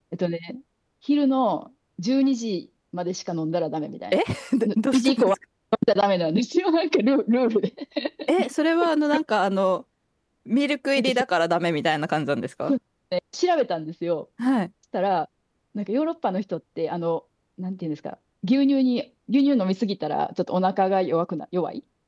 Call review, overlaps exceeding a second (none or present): none